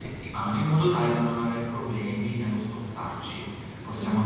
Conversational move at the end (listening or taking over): listening